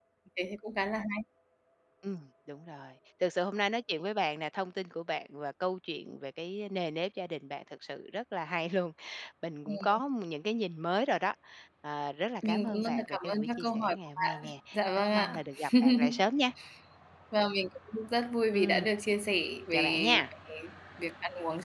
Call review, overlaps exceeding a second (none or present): present